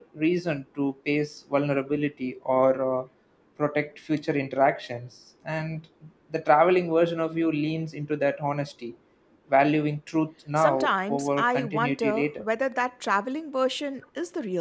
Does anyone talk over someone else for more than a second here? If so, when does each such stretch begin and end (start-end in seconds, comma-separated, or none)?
10.6-12.4